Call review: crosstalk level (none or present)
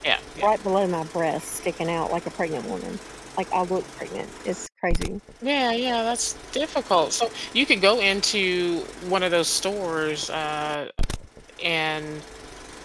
none